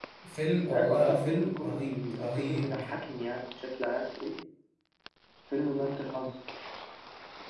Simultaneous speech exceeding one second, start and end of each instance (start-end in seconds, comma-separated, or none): 0.7-2.8